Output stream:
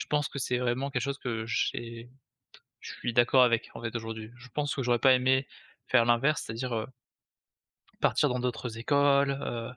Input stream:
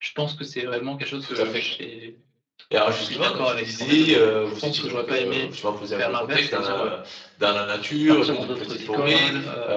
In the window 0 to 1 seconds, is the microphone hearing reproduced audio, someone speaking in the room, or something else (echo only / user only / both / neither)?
echo only